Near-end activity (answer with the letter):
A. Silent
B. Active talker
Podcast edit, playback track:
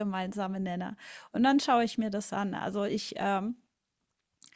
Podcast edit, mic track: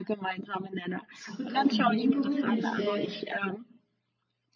B